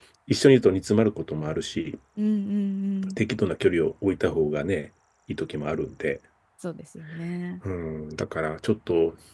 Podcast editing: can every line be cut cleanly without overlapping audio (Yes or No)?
Yes